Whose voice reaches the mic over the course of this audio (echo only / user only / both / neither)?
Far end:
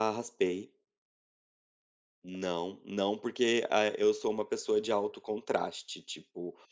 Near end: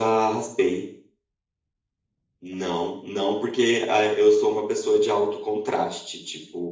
echo only